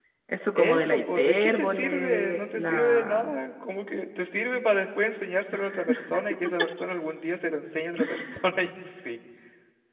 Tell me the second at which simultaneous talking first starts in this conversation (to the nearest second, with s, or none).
1 s